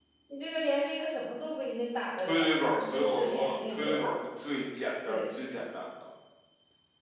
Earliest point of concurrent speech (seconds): 2.3 s

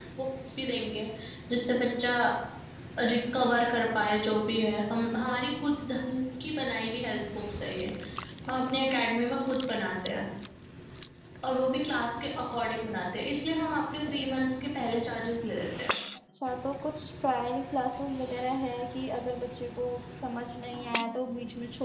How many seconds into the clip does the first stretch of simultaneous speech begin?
none

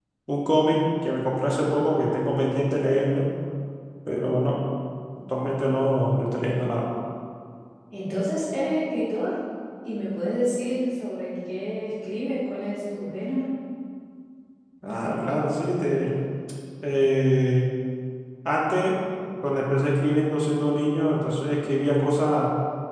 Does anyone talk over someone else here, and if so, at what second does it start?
none

